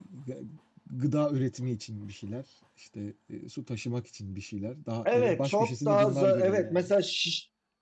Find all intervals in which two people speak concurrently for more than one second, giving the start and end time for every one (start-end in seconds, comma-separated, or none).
5.0-6.9